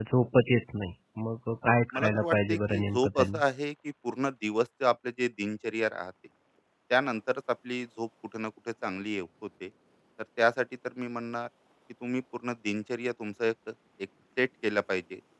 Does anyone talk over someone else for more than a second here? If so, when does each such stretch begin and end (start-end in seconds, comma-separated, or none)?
1.9-3.4